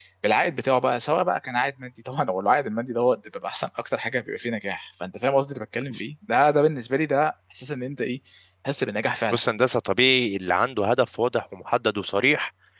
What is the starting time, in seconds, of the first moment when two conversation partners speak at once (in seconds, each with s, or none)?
none